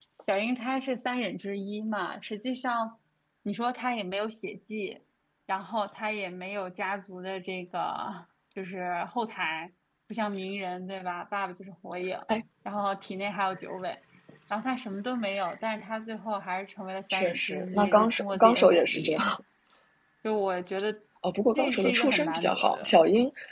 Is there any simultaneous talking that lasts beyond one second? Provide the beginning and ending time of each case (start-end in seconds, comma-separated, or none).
17.1-19.2, 21.6-23.0